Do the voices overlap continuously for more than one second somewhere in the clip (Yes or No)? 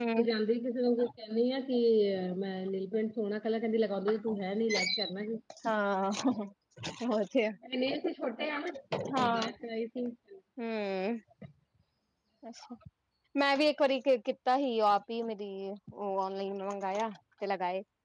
No